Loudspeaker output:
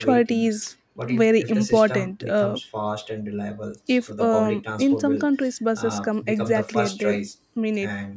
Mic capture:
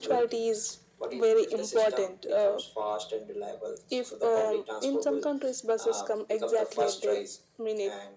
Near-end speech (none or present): none